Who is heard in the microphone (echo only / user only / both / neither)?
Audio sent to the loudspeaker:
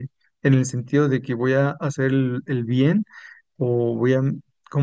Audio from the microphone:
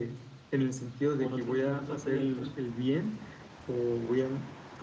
both